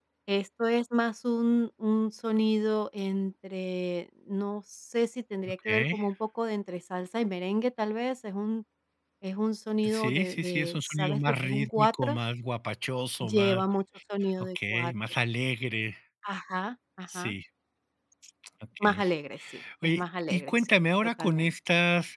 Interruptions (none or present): present